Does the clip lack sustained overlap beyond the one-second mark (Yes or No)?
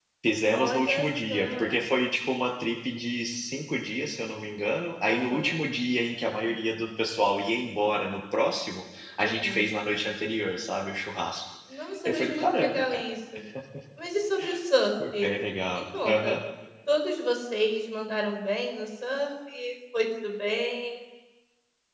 No